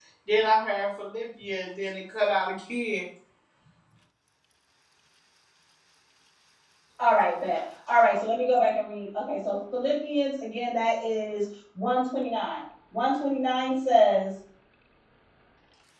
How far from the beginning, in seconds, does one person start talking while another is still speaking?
none

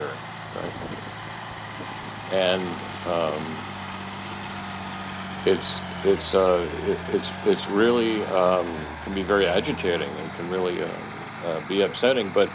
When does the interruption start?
none

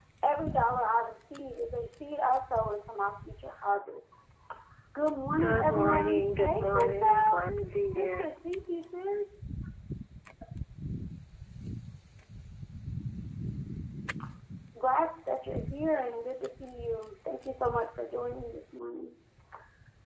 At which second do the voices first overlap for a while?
5.4 s

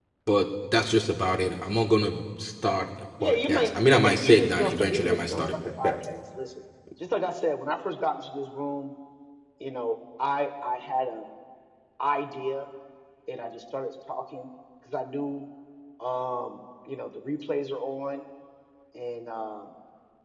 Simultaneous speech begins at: 3.2 s

